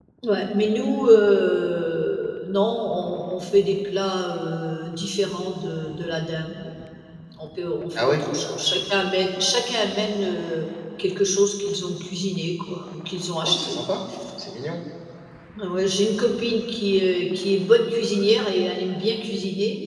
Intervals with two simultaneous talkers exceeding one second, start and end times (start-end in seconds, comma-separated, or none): none